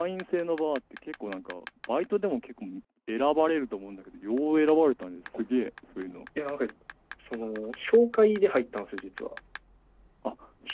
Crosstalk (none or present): none